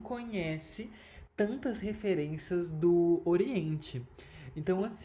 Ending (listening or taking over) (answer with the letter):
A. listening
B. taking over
A